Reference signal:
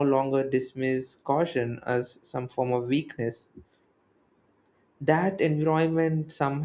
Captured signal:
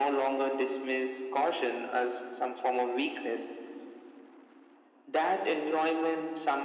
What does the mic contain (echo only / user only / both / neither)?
echo only